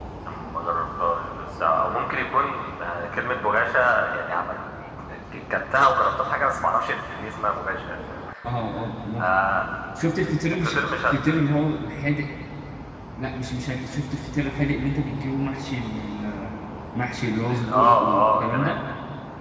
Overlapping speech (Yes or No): Yes